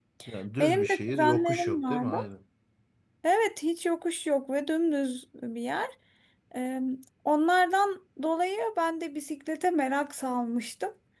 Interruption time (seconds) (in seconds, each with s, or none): 0.6 s